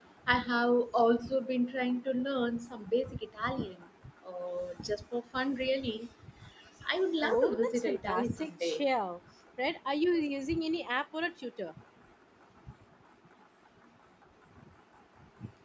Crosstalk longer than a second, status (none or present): present